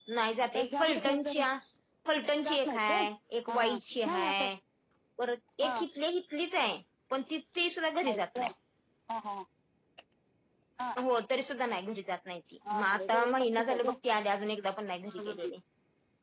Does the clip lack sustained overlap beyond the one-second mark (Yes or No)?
No